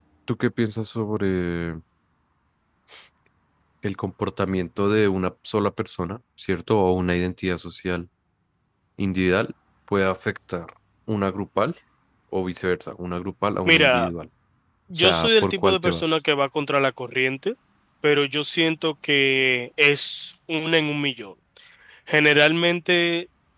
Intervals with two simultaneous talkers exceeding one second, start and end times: 15.0-16.2

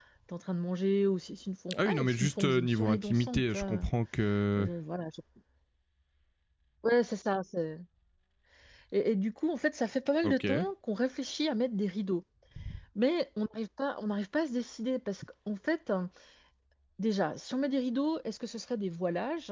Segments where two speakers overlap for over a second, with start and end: 1.9-3.8

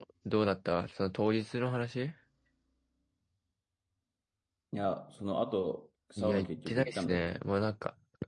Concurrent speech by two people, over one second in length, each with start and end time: 6.2-7.4

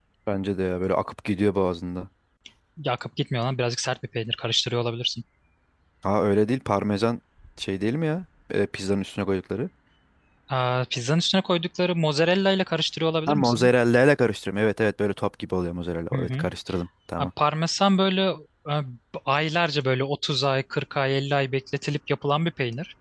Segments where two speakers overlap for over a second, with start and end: none

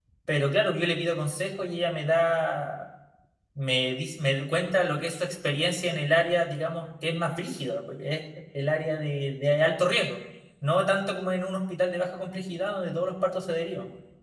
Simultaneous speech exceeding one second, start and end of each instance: none

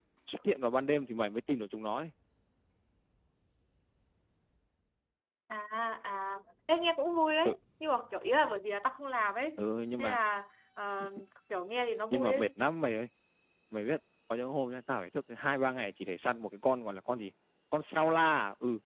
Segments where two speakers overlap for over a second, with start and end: none

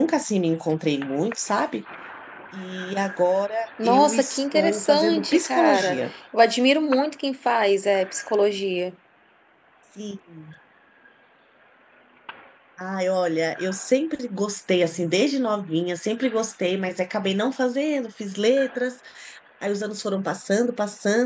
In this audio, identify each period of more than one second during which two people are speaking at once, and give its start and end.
3.8-6.0

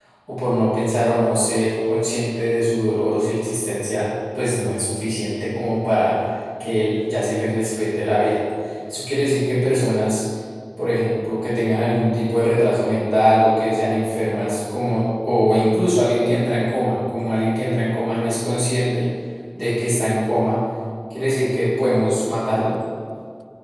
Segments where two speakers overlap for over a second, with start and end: none

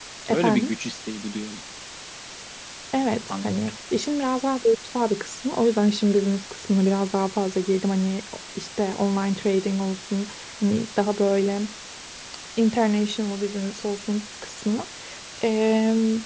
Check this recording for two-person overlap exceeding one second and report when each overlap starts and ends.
none

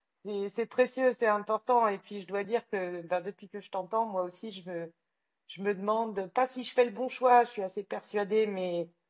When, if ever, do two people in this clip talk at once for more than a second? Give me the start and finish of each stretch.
none

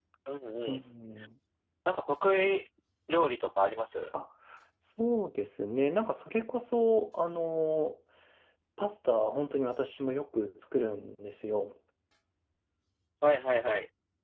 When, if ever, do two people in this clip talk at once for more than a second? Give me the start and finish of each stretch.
none

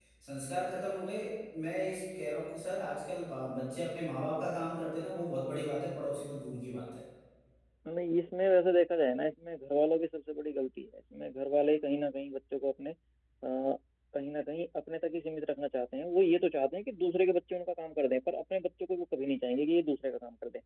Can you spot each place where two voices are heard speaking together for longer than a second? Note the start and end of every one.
none

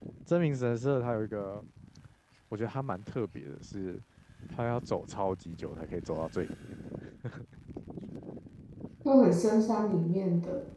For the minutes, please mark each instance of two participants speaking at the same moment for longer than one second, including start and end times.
none

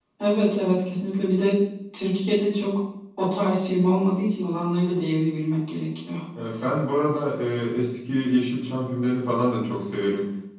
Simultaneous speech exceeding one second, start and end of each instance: none

